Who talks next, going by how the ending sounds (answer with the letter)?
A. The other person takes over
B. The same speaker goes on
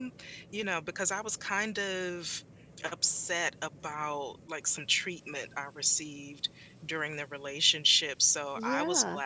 B